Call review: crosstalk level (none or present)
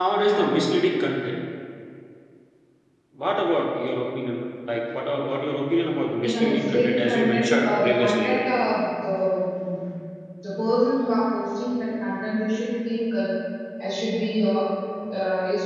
present